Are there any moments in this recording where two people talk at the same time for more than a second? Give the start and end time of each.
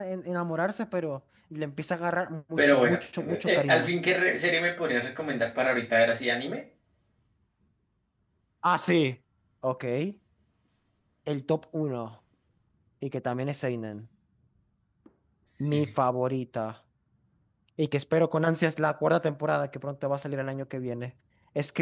2.6-3.9

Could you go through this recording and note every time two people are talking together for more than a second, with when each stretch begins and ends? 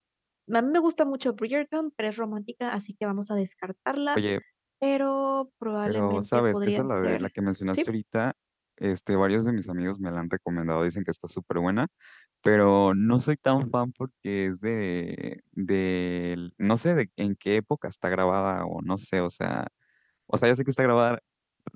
5.9-7.3

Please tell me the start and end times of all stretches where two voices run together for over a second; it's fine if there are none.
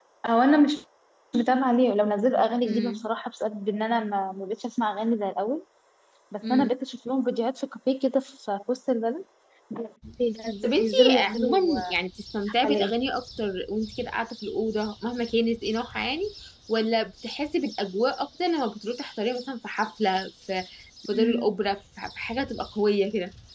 10.6-11.9

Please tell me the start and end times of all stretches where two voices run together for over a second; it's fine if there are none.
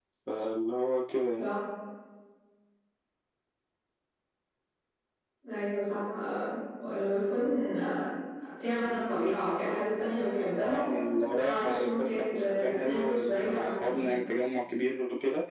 11.4-14.1

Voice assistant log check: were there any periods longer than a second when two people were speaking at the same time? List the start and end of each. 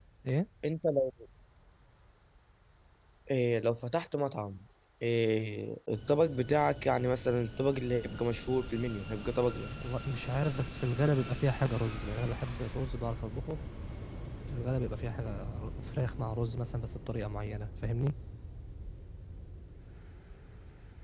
none

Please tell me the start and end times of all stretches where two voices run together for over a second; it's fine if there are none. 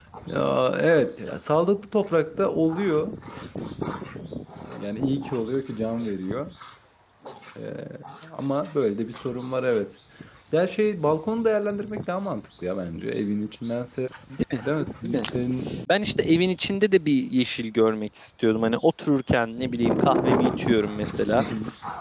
none

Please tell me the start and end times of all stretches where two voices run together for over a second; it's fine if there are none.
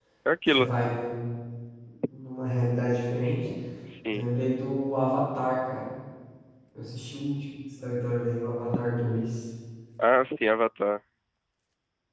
none

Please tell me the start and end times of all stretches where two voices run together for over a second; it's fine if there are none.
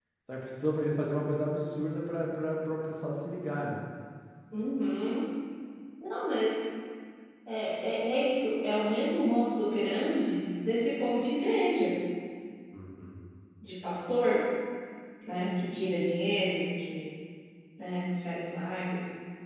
none

